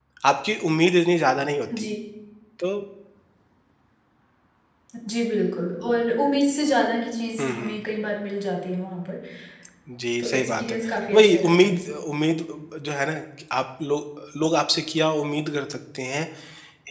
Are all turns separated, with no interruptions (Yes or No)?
No